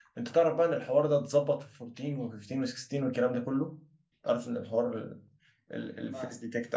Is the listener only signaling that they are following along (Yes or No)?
Yes